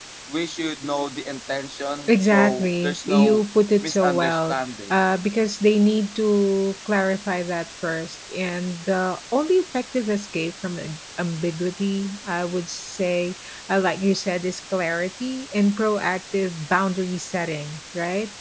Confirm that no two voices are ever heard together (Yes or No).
No